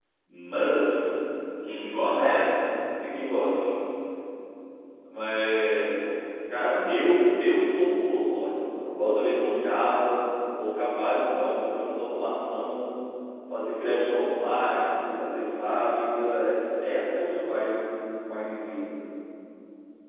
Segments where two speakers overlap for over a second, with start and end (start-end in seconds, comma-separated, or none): none